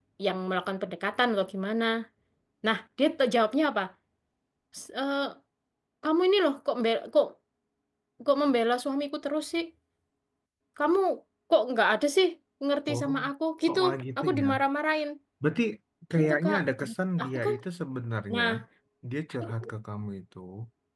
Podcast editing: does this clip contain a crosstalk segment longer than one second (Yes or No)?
Yes